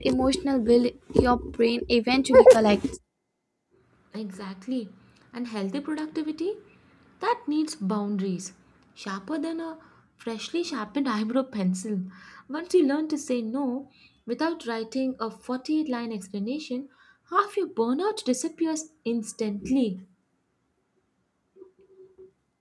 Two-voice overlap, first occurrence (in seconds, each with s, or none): none